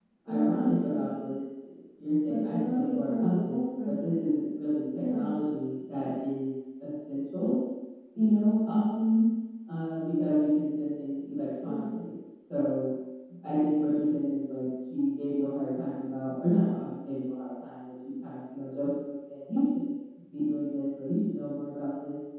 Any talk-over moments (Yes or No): Yes